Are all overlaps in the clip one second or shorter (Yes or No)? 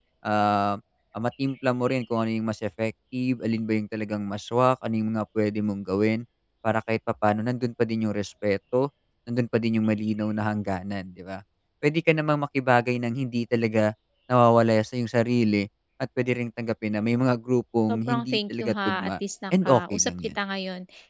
No